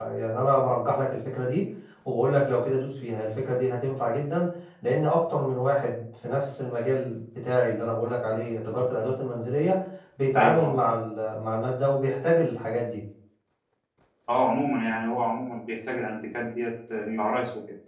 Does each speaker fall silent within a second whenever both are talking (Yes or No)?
Yes